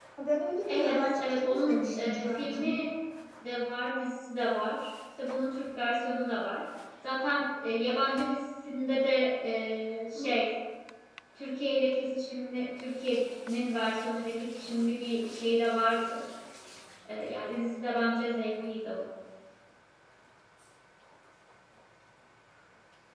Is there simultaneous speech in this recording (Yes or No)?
Yes